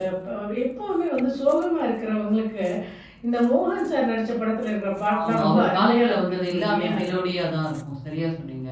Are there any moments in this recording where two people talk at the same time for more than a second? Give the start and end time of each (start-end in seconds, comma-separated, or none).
5.2-6.9